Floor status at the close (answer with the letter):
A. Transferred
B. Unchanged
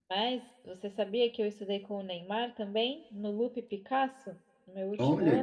A